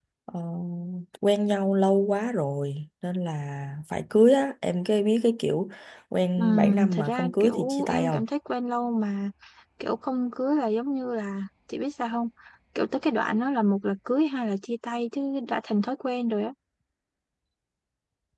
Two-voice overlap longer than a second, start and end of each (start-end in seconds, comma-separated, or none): 6.4-8.2